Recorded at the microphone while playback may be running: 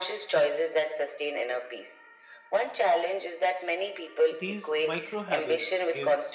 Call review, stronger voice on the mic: echo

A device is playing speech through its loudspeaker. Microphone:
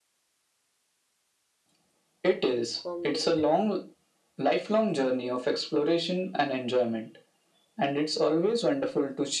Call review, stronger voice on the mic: echo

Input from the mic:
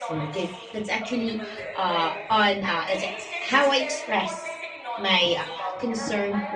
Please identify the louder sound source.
user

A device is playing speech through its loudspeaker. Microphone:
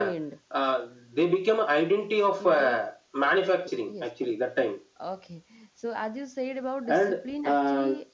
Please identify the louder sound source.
echo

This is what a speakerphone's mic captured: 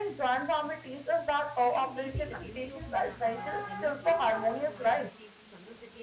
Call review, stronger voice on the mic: echo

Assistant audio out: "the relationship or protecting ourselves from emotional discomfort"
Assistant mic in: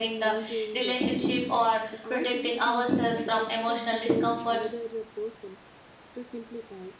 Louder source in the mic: echo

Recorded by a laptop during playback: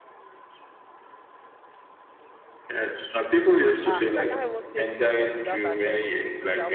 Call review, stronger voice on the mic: echo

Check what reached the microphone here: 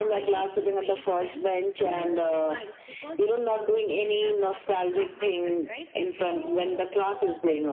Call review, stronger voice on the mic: echo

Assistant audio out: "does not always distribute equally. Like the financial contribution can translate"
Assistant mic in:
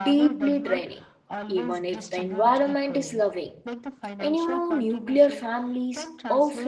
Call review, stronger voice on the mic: user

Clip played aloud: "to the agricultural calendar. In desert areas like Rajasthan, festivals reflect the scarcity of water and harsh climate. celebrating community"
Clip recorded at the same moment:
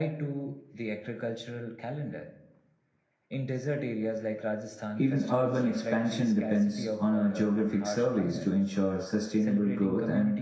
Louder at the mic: user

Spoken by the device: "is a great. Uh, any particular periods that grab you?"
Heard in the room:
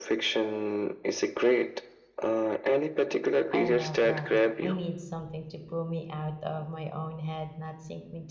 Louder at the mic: echo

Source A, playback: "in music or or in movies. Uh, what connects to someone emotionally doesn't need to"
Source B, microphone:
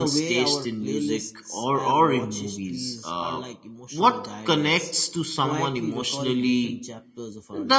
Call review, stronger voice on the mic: echo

